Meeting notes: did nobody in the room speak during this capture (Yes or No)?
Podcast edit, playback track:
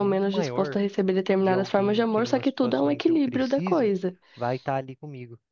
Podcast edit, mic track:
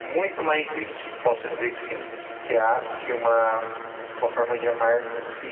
No